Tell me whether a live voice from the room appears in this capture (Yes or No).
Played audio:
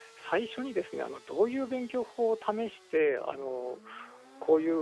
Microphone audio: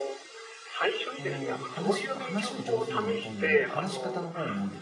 Yes